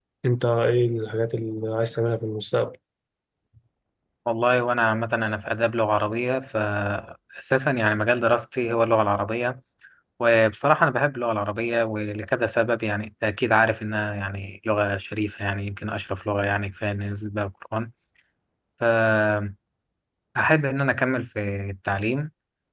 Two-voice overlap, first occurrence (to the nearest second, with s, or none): none